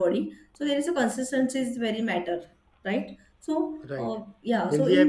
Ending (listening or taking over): taking over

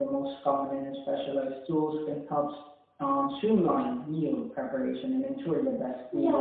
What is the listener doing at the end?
taking over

